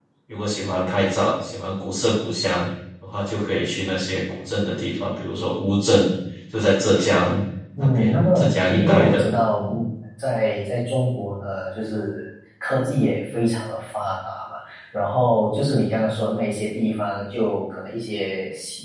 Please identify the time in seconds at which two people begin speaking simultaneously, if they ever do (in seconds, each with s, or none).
7.8 s